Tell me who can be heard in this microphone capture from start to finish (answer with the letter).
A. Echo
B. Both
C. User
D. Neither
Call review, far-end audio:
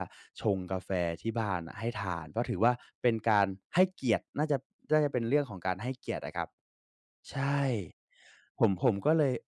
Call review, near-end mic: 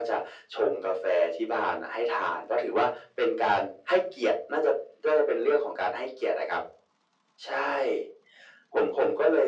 A